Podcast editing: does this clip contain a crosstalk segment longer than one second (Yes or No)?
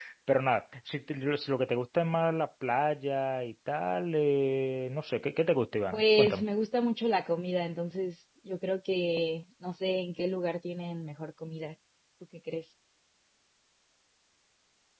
No